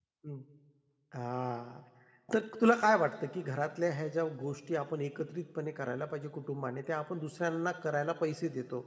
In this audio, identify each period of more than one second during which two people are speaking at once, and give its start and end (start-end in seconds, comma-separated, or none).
none